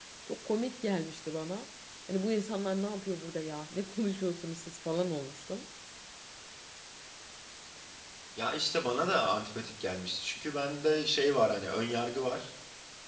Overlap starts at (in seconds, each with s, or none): none